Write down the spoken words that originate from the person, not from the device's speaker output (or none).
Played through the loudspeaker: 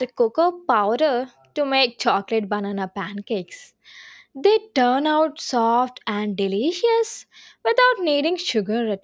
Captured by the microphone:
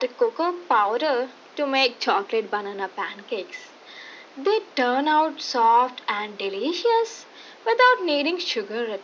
none